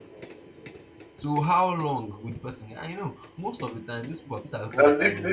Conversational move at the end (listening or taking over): taking over